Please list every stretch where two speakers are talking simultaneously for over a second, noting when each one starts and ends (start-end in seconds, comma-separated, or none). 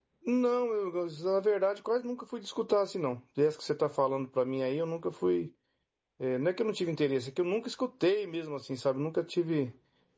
none